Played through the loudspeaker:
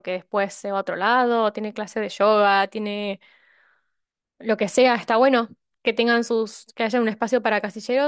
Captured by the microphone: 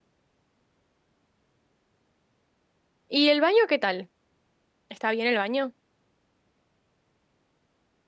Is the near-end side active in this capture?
Yes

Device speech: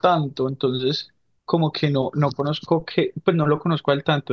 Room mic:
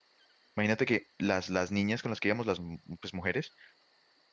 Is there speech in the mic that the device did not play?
Yes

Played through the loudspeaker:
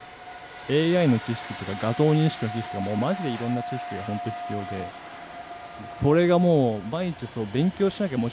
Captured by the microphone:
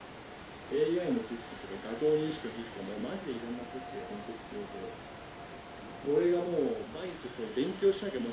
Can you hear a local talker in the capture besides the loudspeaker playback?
No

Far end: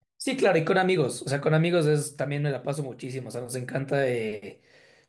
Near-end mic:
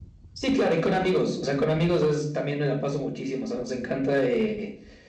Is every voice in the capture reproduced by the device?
Yes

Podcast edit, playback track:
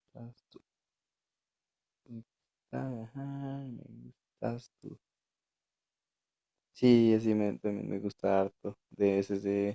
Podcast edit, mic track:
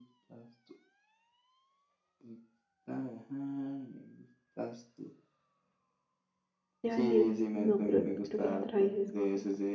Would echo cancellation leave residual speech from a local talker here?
Yes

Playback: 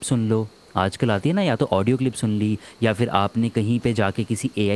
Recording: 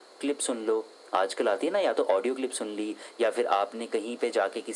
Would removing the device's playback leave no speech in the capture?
Yes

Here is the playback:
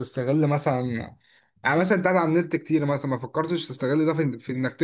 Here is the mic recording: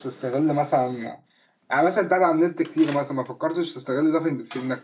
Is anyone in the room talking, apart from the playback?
No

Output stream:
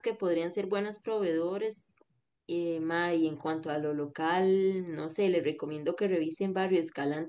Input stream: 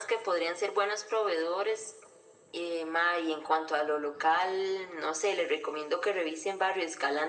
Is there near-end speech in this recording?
No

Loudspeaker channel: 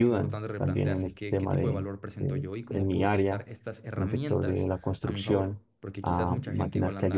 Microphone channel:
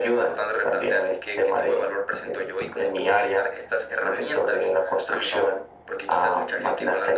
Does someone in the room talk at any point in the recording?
No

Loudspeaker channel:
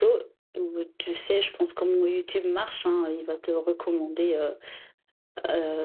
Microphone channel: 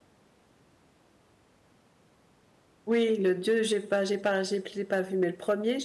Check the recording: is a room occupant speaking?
Yes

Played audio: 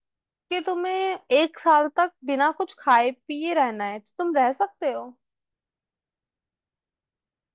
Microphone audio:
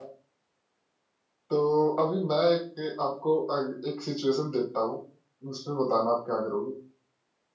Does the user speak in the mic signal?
Yes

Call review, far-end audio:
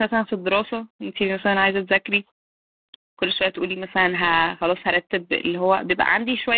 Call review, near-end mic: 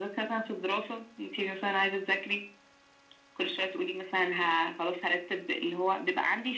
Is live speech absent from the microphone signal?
Yes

